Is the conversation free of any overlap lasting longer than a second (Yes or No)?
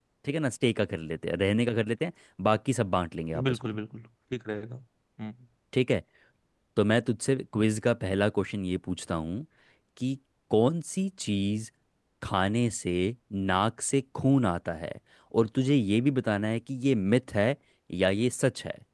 Yes